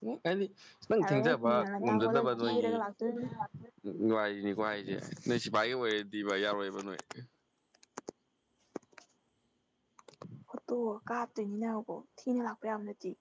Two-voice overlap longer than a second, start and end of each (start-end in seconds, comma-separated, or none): 1.0-2.7